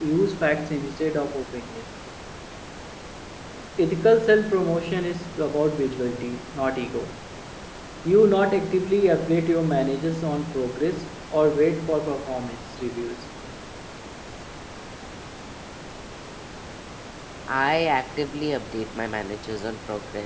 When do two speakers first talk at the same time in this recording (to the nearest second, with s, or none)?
none